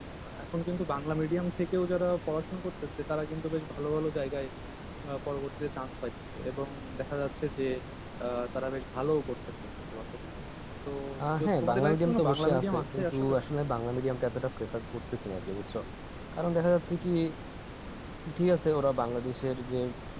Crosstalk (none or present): present